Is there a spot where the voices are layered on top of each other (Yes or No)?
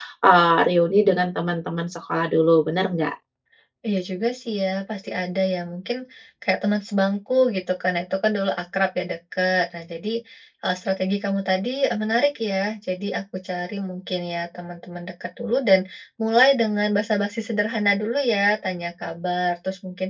No